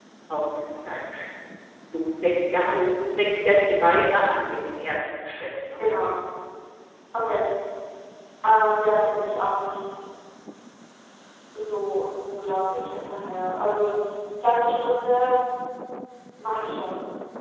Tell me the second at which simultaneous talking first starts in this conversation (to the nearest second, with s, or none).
none